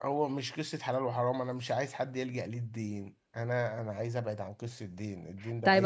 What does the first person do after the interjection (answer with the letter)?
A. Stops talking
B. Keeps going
A